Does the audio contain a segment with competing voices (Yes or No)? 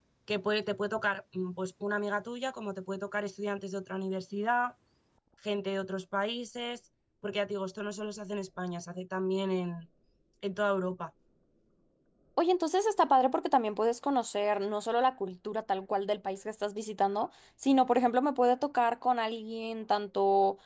No